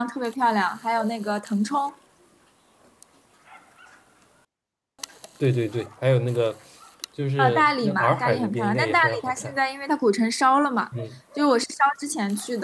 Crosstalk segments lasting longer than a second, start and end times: 7.4-9.6

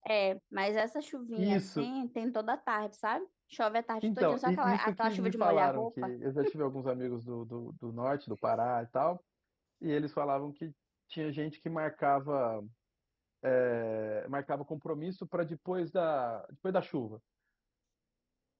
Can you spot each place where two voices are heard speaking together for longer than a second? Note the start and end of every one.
4.0-6.1

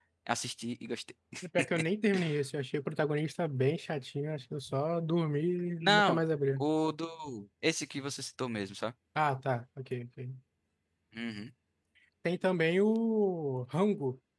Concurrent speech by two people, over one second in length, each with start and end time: none

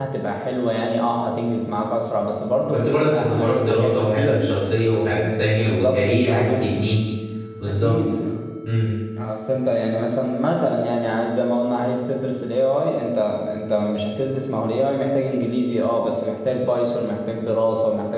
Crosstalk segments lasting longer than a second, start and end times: 2.7-4.4, 5.4-6.7

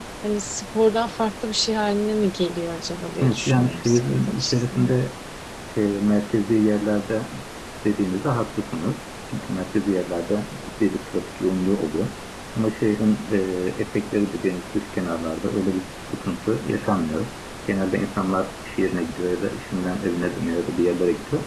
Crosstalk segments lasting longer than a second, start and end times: 3.2-4.9

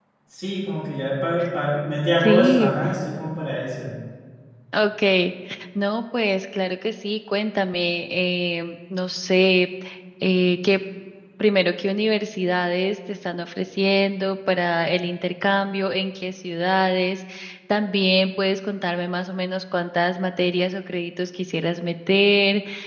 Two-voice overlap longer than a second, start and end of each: none

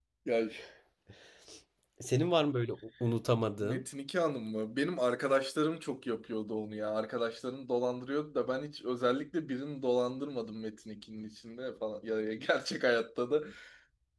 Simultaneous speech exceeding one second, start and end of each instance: none

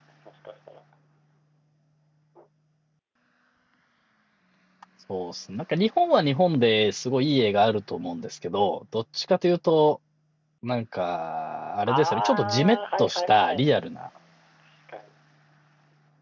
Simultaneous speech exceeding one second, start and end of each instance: 11.9-13.6

